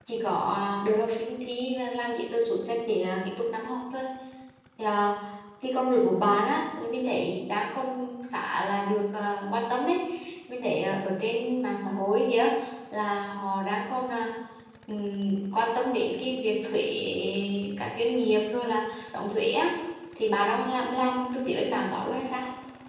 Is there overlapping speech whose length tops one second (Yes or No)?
No